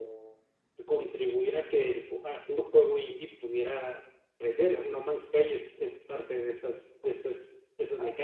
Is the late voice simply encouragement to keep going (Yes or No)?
No